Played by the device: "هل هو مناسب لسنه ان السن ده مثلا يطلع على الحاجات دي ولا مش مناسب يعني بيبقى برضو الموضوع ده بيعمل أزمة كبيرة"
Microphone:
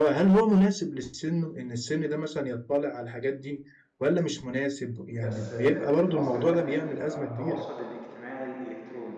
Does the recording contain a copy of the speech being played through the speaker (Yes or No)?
Yes